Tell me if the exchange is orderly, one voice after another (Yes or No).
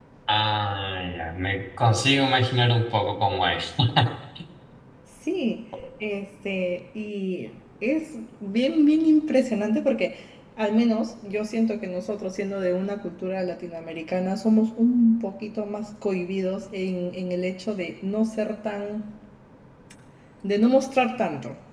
Yes